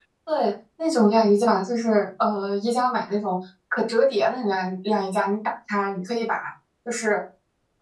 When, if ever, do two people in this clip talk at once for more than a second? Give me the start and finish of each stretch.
none

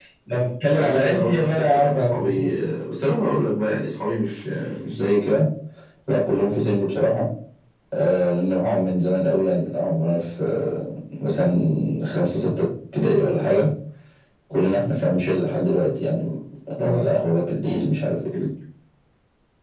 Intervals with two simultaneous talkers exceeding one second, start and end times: 0.7-2.5

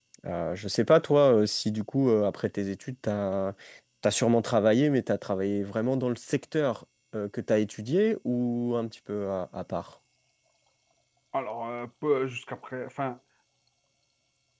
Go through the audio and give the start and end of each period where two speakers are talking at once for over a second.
none

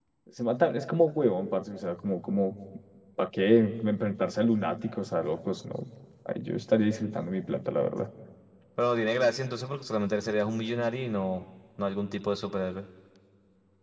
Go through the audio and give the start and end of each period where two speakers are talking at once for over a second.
none

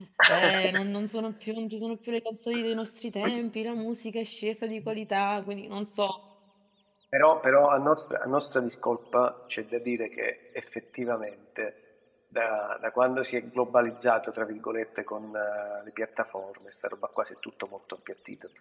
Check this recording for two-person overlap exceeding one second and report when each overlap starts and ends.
none

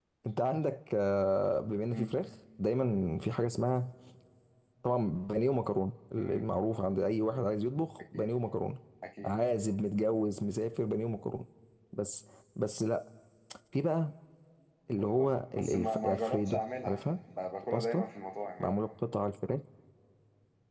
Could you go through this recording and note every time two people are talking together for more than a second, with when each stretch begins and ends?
15.0-17.0

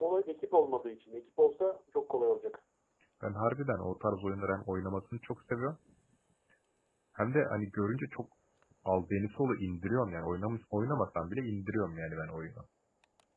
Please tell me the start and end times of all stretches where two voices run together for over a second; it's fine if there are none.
none

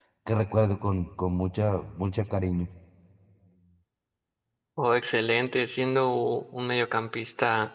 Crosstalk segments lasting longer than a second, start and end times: none

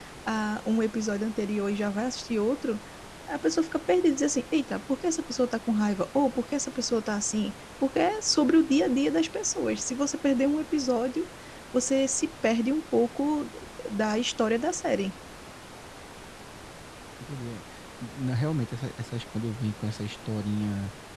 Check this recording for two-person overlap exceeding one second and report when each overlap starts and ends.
none

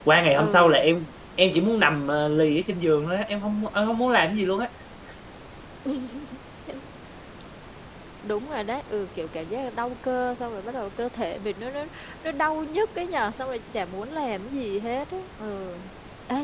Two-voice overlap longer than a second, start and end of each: none

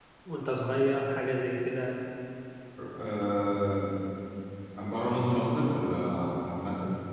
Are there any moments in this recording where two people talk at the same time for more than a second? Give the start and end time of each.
none

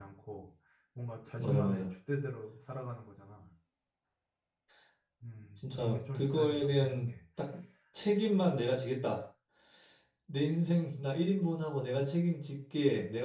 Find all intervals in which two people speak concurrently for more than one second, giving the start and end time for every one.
5.7-7.1

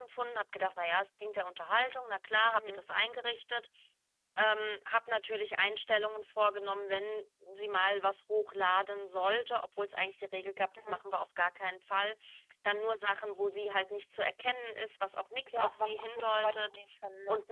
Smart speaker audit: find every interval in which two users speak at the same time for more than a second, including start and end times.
15.5-16.8

